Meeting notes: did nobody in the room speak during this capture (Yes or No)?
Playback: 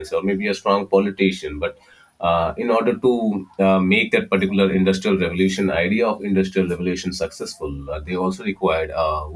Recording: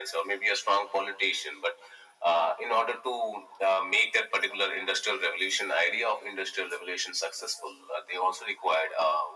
Yes